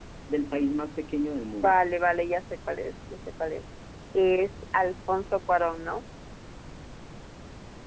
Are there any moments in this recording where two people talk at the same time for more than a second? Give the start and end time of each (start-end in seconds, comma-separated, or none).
none